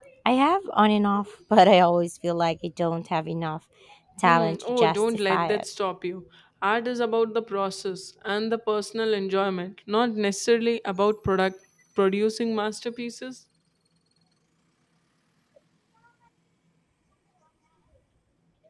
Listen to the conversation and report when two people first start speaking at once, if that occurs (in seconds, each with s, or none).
4.2 s